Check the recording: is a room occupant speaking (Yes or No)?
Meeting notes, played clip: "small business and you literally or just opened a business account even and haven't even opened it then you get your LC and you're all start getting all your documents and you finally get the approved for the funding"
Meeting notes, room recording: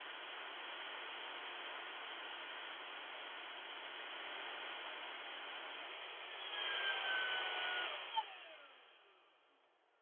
No